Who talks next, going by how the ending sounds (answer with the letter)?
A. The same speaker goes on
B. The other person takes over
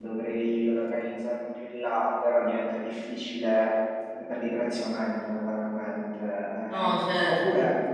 A